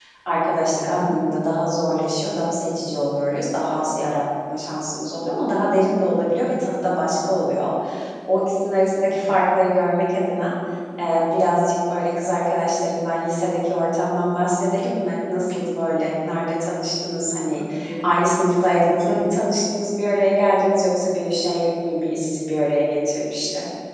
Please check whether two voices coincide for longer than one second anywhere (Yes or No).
No